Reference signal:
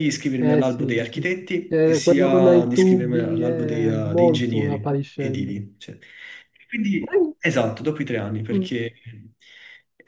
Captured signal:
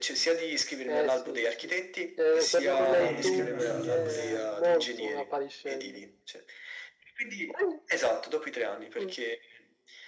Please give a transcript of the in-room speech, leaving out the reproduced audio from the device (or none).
Ed è abbastanza tosta.